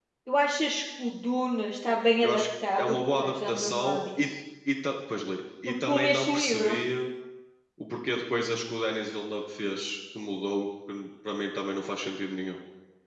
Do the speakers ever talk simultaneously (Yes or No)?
Yes